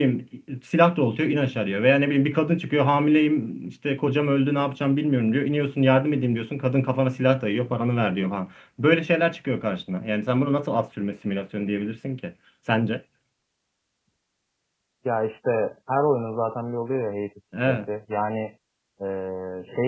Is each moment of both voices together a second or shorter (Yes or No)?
Yes